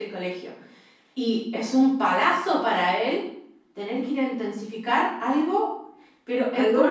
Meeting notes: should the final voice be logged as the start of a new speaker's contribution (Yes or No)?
Yes